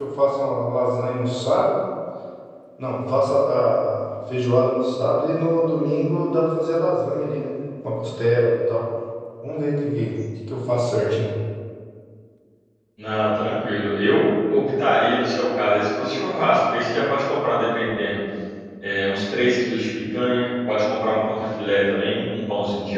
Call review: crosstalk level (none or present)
none